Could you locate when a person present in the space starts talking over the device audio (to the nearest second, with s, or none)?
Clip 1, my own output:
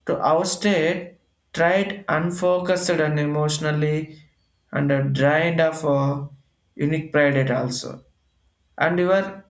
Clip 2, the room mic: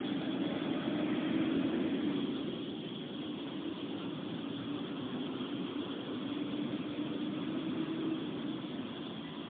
none